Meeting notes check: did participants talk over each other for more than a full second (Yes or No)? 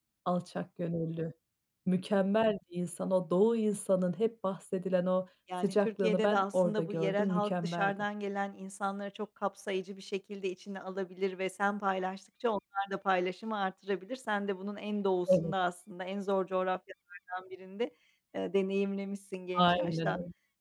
Yes